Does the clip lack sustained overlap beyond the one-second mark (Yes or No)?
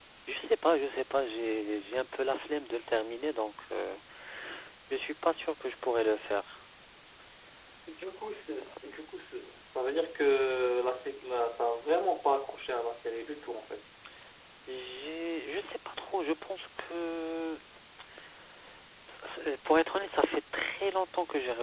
Yes